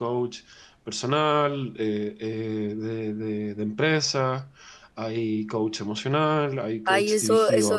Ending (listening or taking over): taking over